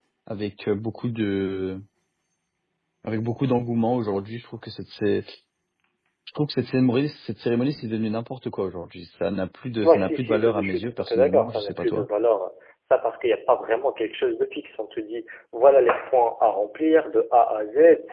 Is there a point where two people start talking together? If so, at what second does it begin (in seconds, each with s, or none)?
9.8 s